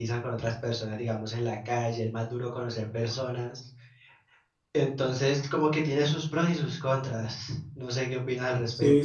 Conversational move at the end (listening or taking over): taking over